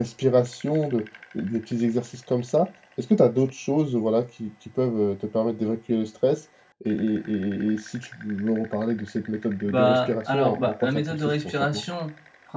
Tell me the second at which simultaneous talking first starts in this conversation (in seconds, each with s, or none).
9.7 s